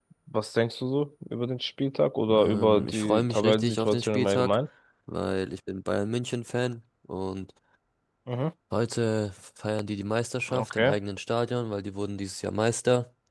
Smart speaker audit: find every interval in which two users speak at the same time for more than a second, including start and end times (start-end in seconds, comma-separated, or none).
2.3-4.6